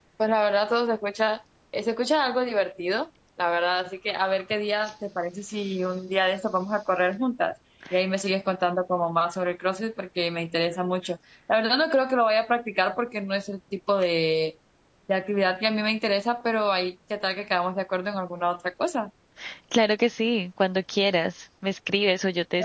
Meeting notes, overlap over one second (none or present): none